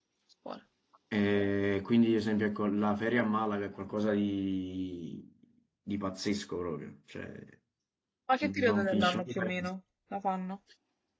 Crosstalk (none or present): present